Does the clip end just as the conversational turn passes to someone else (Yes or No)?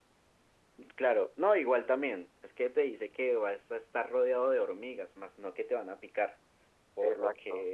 No